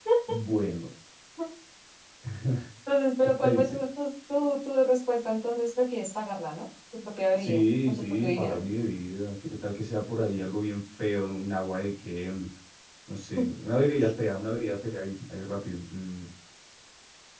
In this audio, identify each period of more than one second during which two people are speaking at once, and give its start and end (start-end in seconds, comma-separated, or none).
7.3-8.6